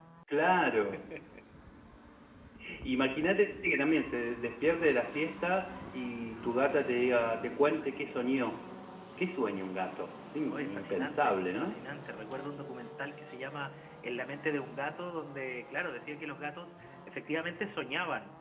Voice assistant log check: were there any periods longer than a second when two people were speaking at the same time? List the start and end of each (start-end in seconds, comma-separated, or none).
10.5-11.8